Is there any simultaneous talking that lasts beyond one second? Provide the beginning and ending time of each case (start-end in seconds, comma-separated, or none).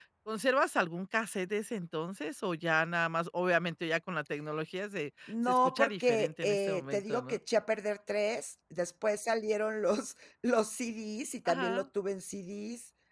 5.3-7.4